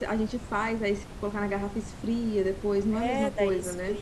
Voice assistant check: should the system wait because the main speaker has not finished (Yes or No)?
No